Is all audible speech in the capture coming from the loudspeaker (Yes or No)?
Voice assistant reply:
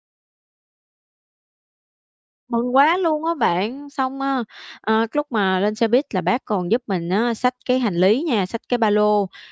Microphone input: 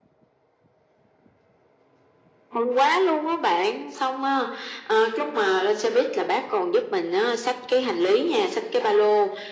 Yes